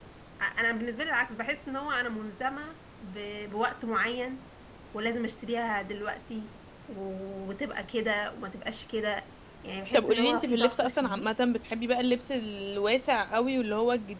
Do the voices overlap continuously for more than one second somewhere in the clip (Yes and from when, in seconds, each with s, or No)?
Yes, from 9.9 s